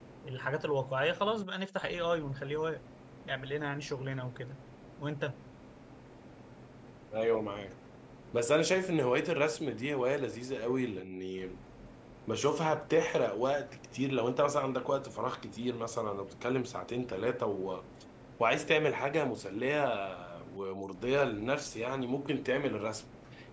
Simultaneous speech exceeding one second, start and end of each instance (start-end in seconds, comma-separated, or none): none